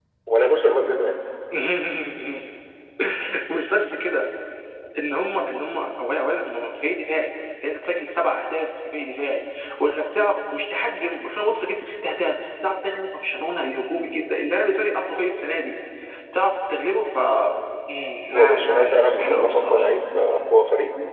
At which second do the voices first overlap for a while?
18.3 s

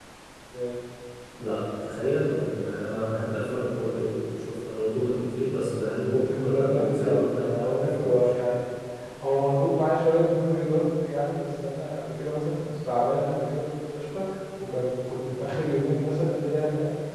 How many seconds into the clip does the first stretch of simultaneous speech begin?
6.1 s

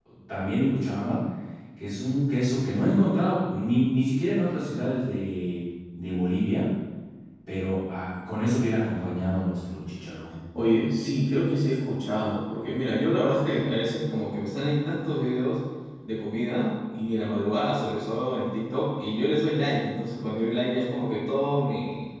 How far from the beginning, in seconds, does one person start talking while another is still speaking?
none

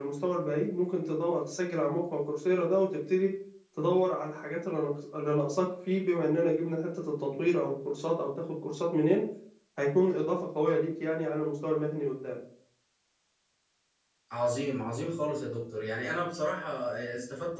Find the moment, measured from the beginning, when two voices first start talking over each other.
none

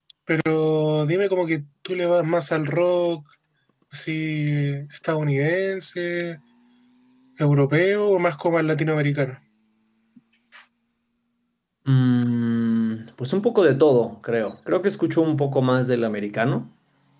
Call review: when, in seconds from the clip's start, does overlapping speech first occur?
none

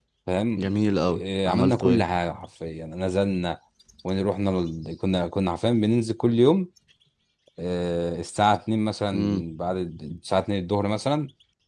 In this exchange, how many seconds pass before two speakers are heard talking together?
0.6 s

